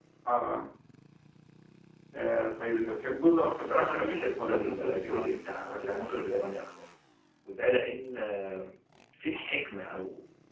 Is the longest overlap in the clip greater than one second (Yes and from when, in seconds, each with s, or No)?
Yes, from 3.4 s